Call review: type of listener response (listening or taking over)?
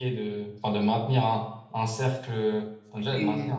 listening